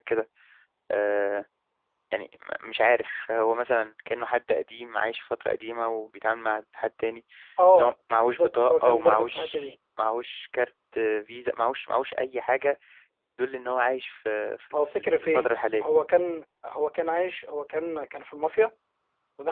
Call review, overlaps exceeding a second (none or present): present